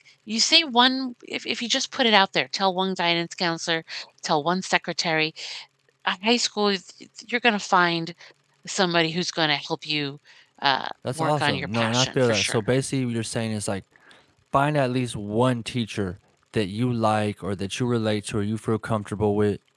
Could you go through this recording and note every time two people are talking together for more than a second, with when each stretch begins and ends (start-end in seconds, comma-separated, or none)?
11.1-12.6